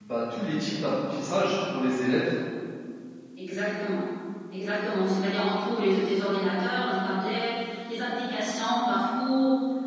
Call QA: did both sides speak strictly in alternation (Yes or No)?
Yes